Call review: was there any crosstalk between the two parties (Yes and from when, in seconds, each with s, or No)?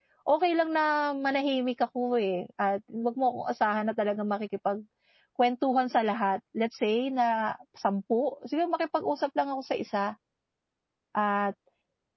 No